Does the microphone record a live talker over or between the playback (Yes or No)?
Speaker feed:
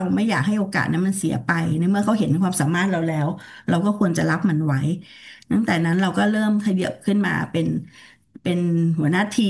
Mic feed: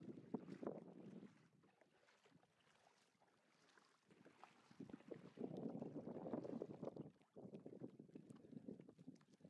No